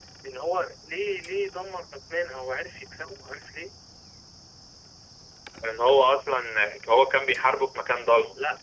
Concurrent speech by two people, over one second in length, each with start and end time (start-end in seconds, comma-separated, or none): none